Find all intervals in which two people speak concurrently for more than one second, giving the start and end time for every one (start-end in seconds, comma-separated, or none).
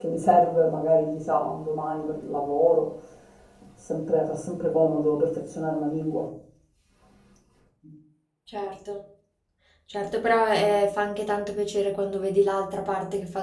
none